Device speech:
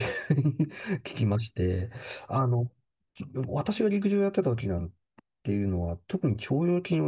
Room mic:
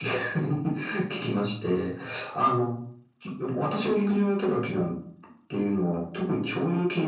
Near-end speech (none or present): none